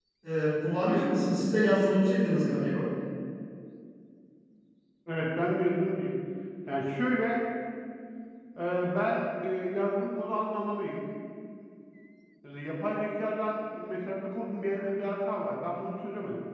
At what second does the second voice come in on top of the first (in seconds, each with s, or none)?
none